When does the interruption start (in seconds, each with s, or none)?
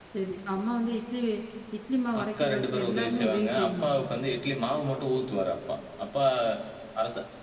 2.2 s